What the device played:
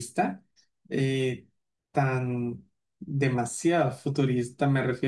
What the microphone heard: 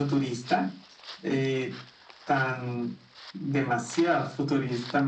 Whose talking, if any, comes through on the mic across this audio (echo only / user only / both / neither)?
echo only